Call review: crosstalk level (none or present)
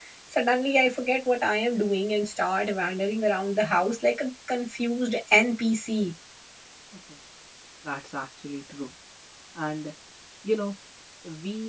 none